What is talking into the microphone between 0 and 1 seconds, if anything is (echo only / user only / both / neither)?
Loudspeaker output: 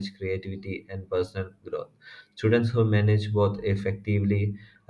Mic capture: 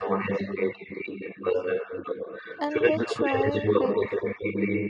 echo only